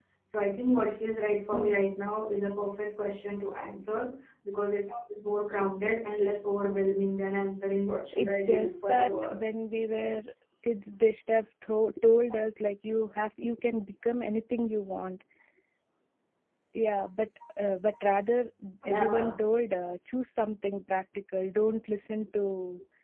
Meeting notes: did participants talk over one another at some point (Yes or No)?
Yes